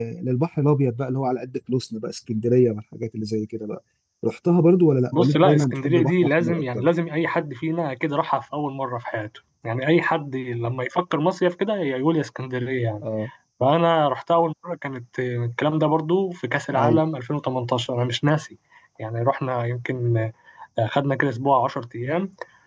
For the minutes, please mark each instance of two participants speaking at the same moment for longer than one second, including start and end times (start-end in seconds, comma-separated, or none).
5.1-6.8